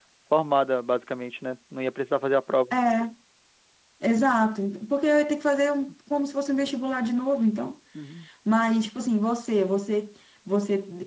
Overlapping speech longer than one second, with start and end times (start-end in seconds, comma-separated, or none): none